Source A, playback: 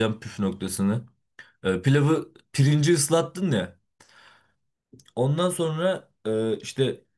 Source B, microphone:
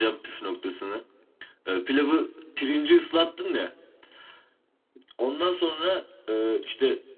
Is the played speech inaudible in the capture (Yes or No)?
No